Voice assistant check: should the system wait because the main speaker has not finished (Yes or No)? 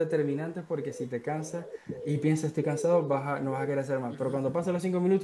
Yes